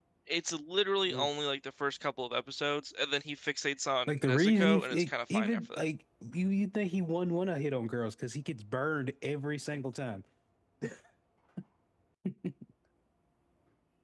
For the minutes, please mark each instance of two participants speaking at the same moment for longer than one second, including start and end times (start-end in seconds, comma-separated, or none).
4.1-5.8